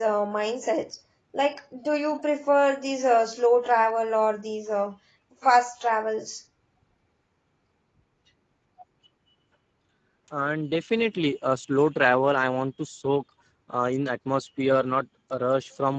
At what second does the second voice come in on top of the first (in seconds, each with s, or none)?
none